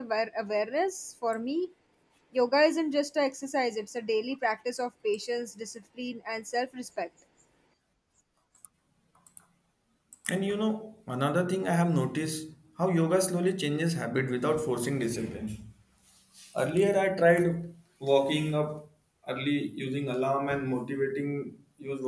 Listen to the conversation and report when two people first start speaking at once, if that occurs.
none

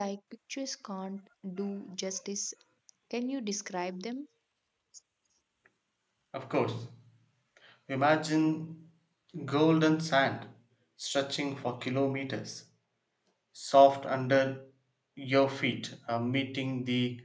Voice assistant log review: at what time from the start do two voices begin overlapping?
none

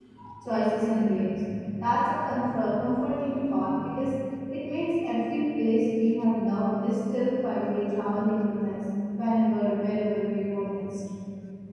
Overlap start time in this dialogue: none

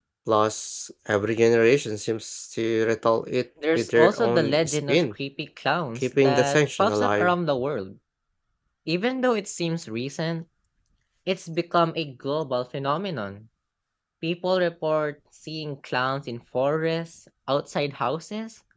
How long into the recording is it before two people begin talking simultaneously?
4 s

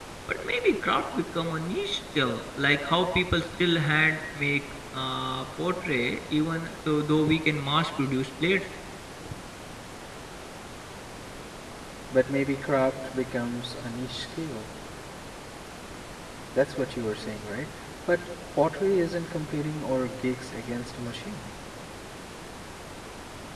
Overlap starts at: none

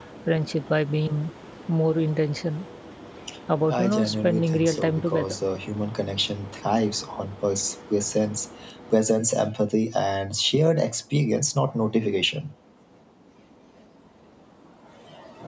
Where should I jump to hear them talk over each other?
4 s

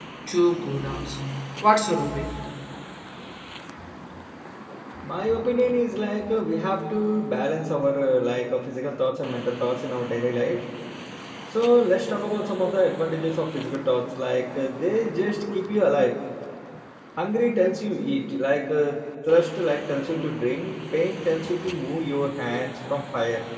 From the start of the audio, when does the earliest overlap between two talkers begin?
none

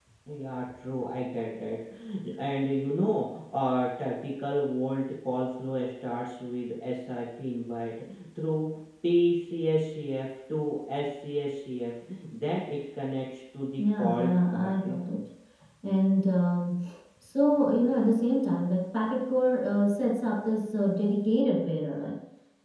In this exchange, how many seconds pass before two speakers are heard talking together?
14 s

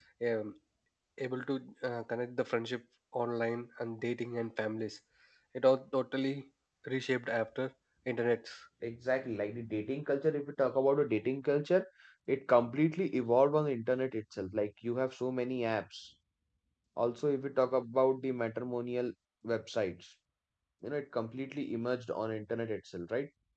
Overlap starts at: none

